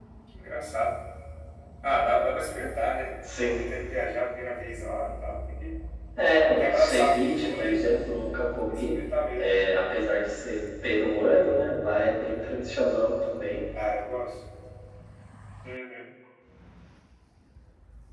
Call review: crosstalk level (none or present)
present